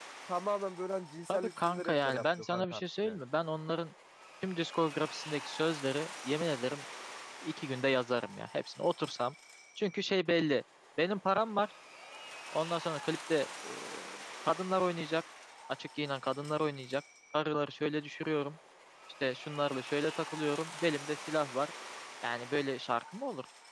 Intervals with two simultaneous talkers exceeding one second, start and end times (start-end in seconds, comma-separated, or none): 1.3-3.2